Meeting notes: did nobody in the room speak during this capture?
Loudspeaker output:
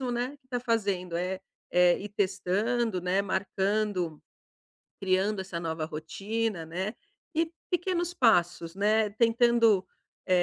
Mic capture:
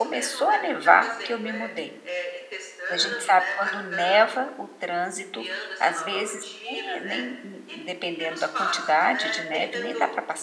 No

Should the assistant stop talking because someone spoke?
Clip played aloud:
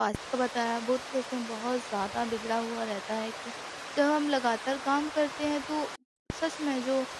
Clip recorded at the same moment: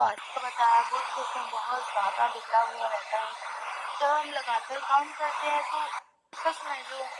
No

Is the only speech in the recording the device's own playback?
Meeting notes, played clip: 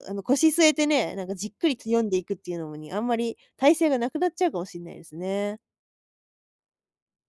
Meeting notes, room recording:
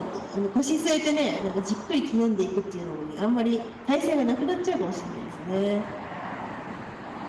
Yes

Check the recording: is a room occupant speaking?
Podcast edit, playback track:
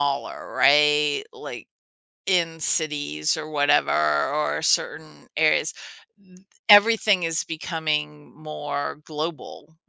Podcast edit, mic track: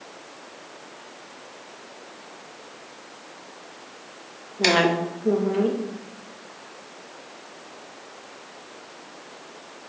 Yes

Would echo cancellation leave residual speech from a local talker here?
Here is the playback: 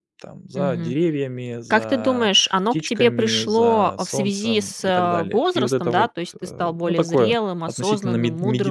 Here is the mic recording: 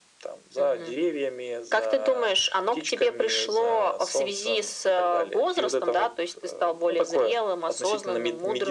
No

